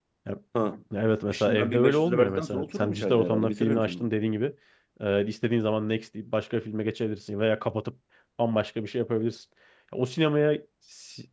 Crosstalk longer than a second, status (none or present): present